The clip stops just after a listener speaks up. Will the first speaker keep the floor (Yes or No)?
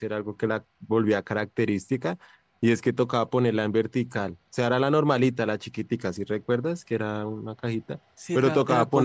No